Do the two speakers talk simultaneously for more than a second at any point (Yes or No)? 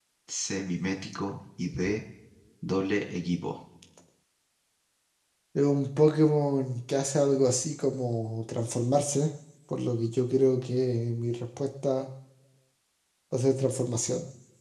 No